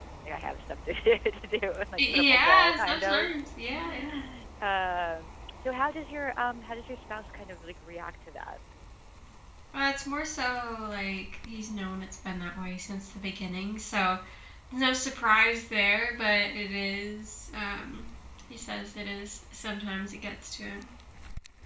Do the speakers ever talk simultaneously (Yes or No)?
Yes